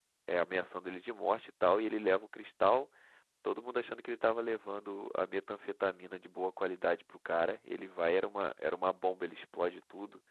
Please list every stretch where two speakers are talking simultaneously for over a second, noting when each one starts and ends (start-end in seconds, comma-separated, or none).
none